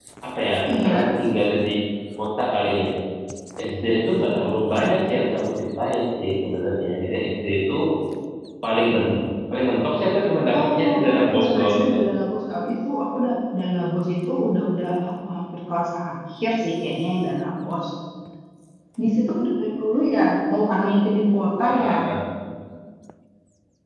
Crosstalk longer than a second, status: present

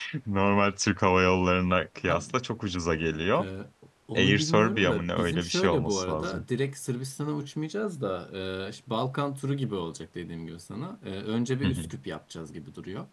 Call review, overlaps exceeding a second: present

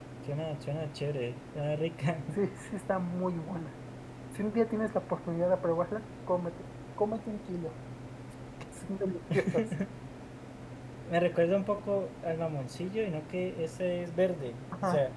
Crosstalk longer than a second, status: none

